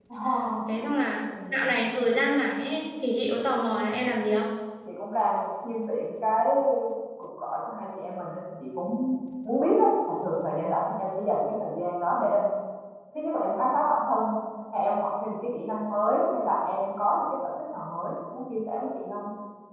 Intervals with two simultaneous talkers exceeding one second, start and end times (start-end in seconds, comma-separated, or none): none